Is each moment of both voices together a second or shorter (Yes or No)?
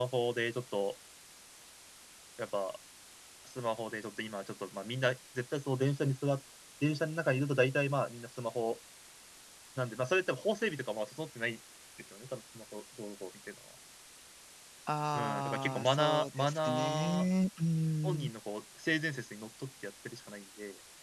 No